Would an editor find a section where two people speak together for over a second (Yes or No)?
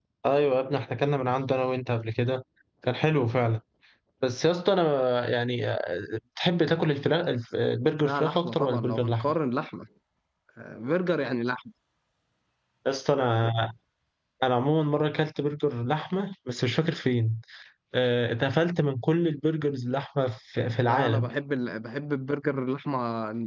Yes